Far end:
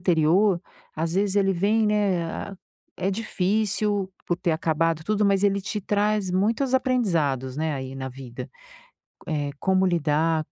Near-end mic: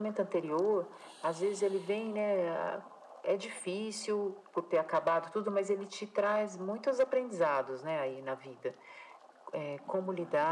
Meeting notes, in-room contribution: none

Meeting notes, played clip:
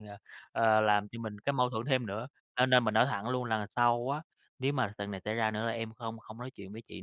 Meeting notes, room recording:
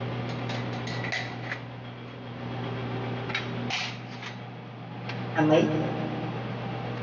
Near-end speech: present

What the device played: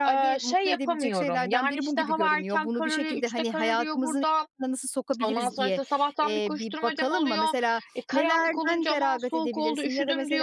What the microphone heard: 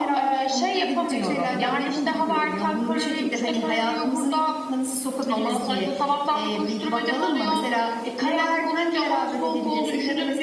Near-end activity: none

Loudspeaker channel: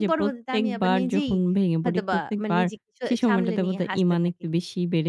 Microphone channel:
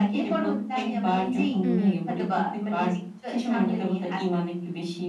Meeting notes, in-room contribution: present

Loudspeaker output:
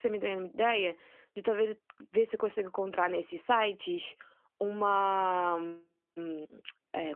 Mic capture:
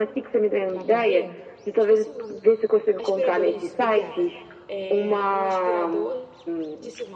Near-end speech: present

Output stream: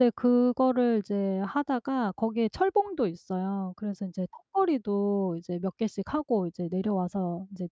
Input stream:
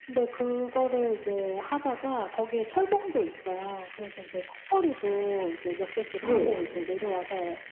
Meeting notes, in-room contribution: present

